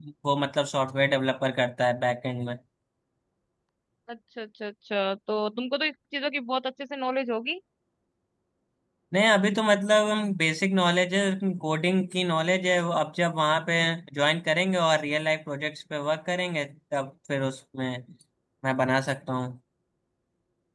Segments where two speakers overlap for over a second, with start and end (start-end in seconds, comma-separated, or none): none